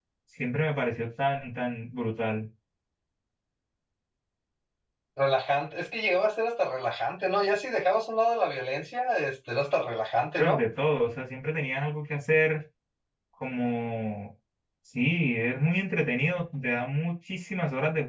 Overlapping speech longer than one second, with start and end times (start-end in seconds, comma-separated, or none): none